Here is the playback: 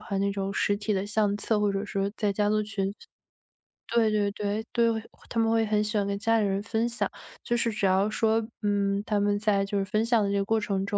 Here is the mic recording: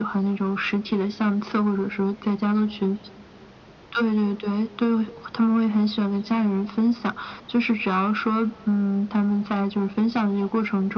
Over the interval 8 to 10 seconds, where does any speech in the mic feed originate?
echo only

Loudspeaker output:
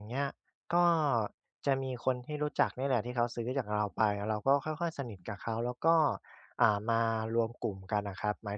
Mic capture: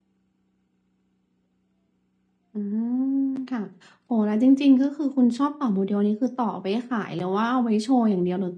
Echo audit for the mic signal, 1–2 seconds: neither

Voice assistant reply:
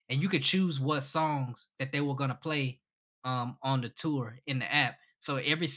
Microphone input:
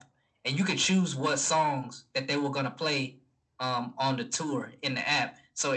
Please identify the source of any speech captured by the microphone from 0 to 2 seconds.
echo only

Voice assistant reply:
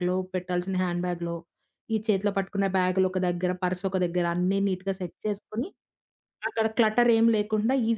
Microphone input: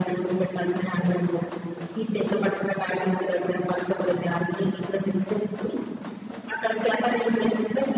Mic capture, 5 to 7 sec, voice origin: echo only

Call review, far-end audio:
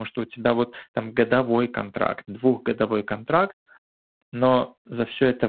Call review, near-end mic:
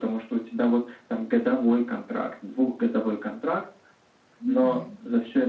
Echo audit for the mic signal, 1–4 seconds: echo only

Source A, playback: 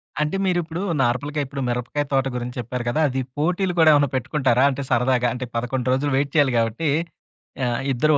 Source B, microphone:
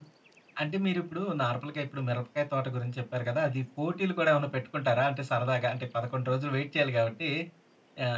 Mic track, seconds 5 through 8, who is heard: echo only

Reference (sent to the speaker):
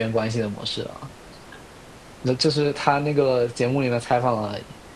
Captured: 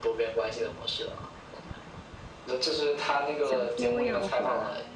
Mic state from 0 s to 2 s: echo only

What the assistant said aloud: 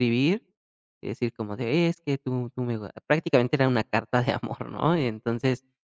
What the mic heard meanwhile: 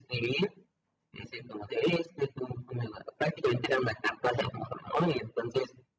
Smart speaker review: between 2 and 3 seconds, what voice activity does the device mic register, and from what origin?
echo only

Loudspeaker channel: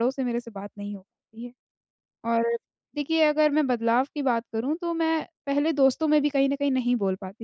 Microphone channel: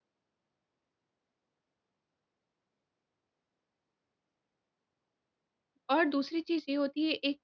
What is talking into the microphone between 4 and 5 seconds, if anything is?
neither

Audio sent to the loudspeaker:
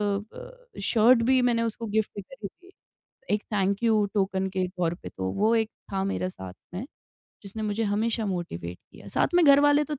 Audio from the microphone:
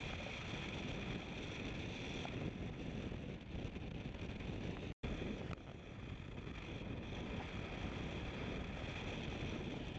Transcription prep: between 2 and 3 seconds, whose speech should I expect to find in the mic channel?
neither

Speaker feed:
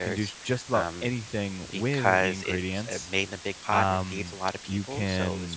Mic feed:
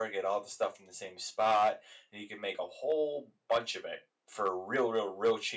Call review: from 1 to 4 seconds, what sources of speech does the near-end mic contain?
user only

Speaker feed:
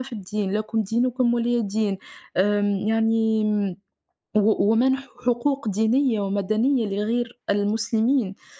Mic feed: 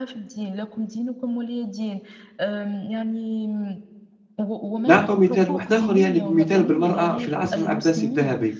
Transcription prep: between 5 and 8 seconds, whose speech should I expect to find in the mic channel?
both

